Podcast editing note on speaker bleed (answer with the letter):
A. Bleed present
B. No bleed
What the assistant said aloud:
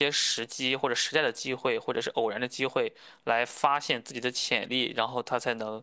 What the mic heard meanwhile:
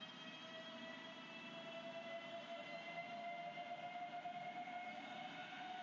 B